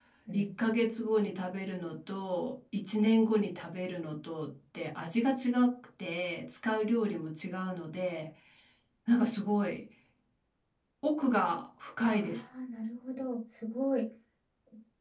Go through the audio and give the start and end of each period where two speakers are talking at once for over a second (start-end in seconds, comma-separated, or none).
none